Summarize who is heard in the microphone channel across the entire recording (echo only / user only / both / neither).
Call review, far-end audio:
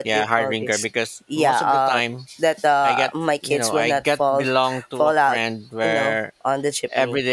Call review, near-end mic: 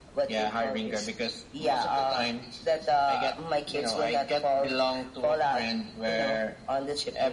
echo only